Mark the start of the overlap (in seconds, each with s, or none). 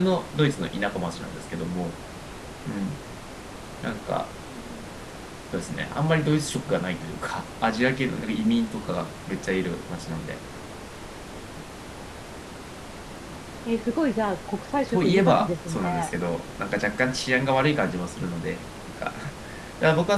14.8 s